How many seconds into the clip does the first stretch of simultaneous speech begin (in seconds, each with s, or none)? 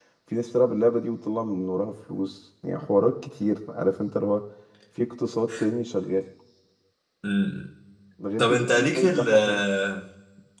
8.4 s